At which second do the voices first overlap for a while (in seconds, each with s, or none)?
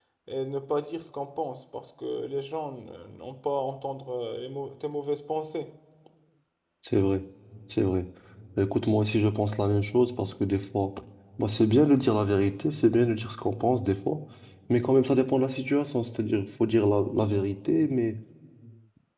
none